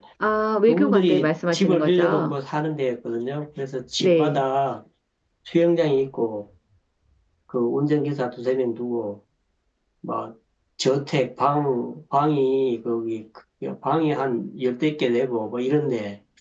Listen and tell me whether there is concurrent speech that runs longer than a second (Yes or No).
Yes